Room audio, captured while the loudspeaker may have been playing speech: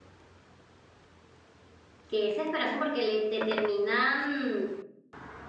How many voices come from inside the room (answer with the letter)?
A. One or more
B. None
A